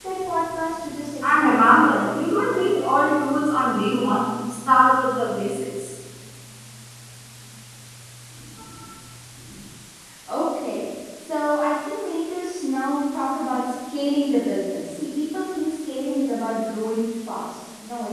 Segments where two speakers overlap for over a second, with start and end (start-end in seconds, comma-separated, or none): 1.2-2.6